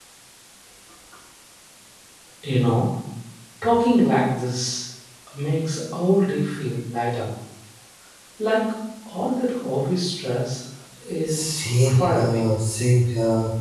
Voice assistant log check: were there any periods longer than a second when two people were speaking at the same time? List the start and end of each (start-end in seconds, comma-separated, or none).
11.3-12.5